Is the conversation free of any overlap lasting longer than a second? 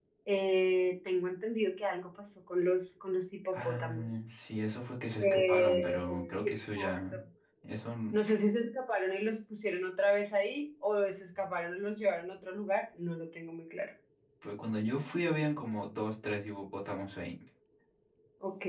No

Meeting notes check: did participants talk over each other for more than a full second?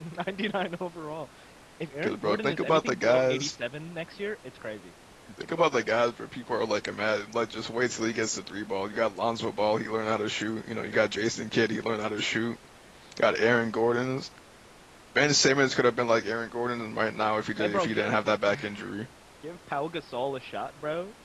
Yes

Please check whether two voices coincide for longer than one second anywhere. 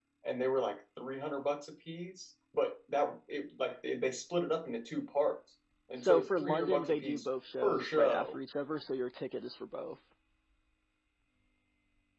Yes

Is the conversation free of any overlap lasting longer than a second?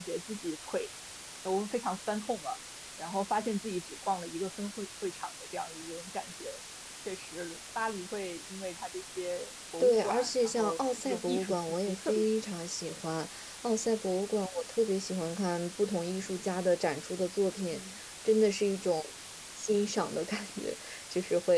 No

